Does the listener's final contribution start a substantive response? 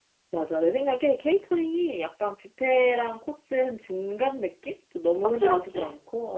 No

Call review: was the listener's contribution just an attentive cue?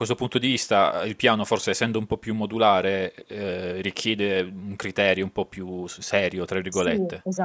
No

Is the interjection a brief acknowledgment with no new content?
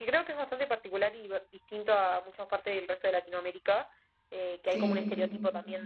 Yes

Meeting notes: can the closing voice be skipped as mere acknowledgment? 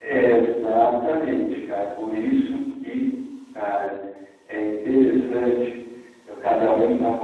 Yes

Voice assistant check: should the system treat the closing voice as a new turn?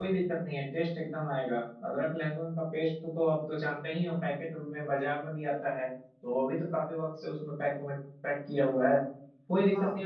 No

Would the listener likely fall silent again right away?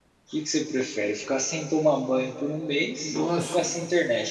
Yes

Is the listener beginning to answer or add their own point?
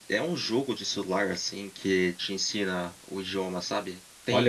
Yes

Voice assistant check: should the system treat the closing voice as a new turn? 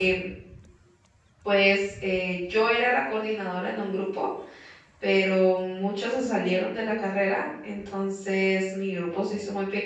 No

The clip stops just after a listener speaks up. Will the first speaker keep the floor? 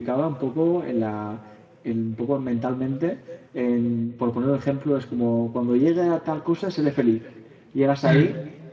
Yes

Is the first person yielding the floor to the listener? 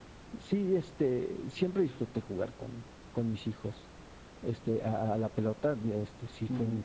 No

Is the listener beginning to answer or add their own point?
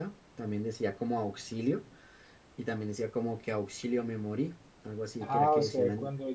Yes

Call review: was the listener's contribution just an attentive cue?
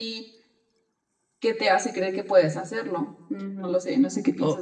No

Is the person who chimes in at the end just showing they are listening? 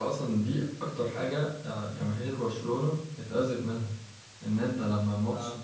Yes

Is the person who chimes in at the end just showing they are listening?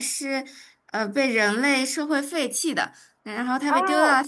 Yes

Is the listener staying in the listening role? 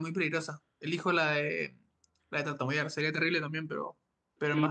No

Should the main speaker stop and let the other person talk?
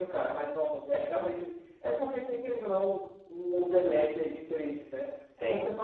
No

